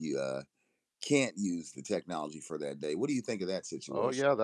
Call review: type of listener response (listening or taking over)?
taking over